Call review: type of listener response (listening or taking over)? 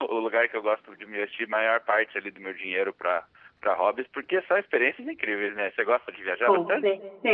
taking over